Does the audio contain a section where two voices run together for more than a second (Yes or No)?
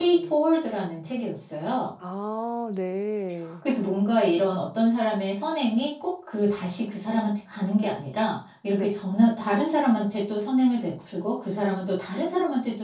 No